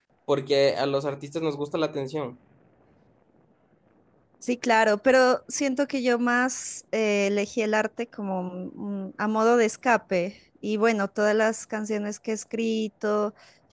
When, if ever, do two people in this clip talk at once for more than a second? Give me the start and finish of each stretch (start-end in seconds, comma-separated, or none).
none